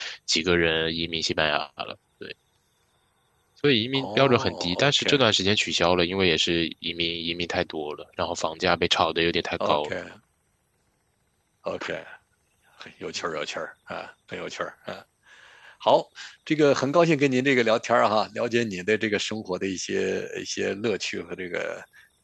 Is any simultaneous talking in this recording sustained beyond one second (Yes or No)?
Yes